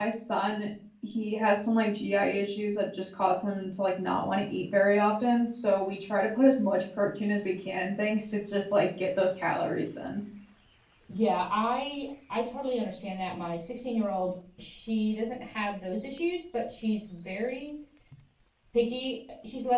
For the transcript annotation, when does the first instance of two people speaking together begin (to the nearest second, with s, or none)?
none